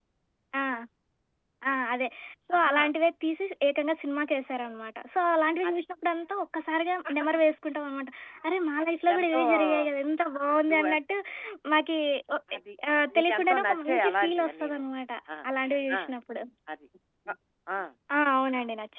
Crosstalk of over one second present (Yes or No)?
Yes